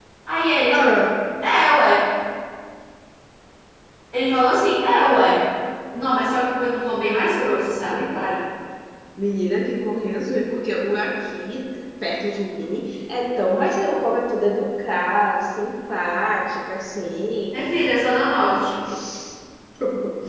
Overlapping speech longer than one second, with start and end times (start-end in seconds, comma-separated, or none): none